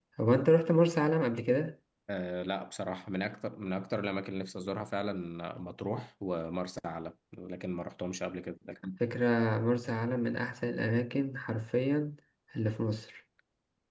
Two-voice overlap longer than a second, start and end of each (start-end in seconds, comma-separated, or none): none